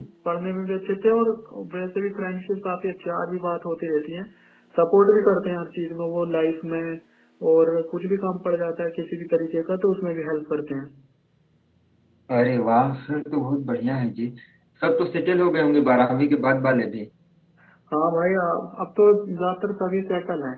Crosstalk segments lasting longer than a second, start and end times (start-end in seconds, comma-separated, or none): none